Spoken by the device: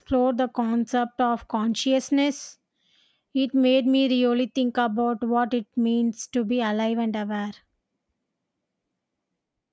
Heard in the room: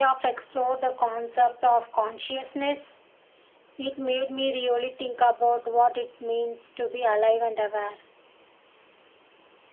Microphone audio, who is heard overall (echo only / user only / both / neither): echo only